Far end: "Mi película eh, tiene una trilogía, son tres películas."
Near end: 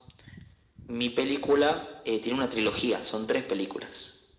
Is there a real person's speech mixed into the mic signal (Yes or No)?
No